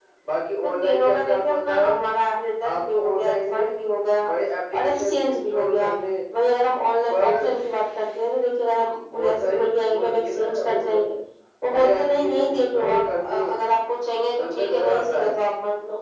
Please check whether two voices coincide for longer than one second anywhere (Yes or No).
Yes